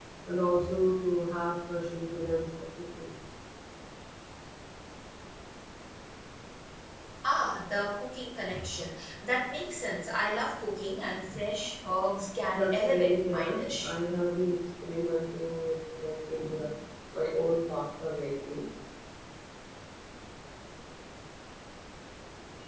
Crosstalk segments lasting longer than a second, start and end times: 12.5-13.9

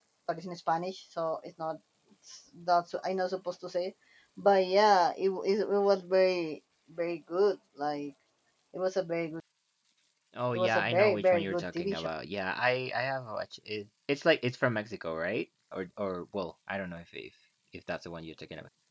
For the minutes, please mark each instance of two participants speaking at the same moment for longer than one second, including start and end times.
10.5-12.1

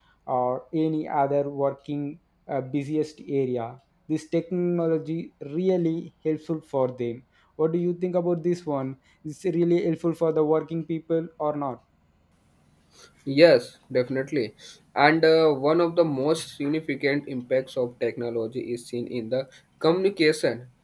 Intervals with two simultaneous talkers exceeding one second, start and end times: none

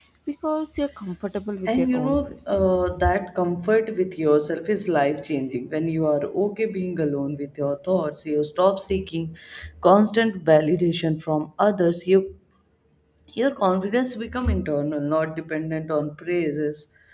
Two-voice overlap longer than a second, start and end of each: 1.7-2.9

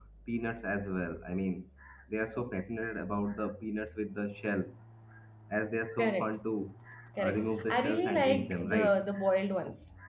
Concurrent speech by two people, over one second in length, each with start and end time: 7.2-9.0

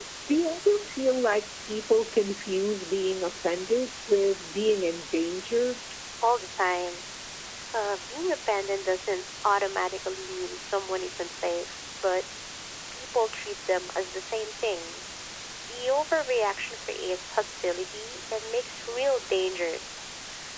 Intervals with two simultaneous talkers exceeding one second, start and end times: none

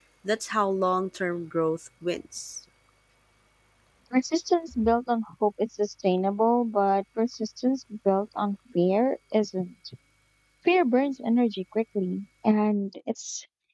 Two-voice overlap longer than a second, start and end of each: none

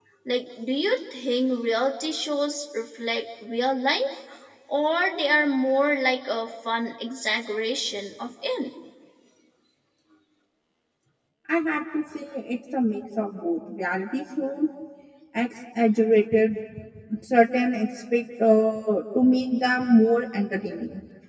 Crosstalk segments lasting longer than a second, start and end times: none

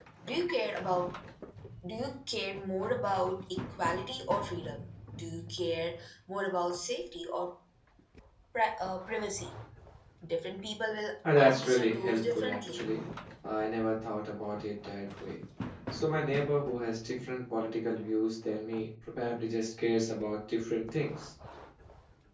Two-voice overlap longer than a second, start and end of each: 11.4-12.8

